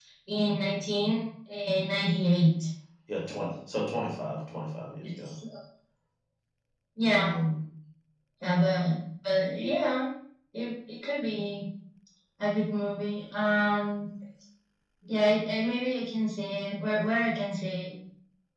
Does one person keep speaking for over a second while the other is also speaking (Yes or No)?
No